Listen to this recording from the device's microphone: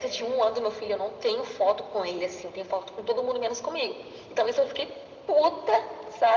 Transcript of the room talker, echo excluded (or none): none